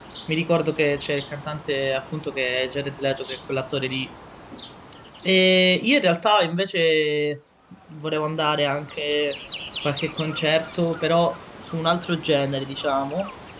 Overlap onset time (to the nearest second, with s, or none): none